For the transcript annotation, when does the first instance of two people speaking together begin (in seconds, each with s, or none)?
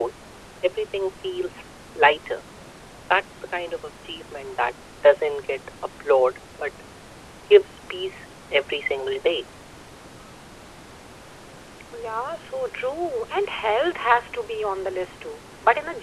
none